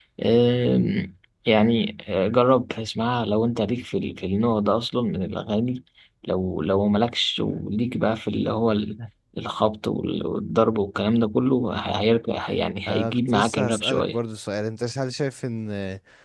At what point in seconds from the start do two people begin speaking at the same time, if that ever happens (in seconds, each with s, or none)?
12.9 s